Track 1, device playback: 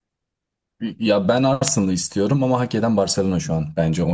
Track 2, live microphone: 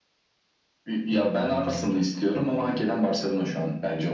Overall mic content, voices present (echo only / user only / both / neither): both